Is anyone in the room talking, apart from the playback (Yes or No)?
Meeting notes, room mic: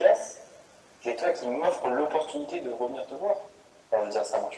No